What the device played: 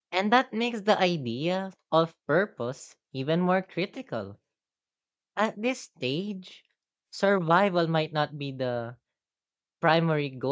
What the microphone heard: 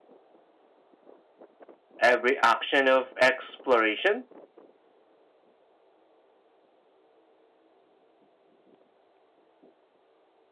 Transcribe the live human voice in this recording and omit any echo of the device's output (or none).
every action of exploration